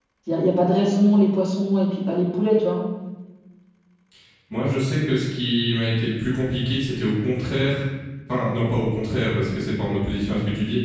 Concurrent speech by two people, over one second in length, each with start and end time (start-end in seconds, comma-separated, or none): none